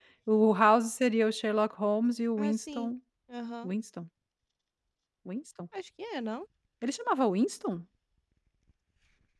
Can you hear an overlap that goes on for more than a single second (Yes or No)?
No